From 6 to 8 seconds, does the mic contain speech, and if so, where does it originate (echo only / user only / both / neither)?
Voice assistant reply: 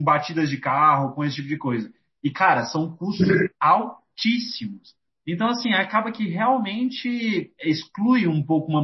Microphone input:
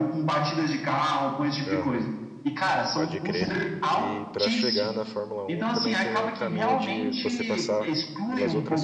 both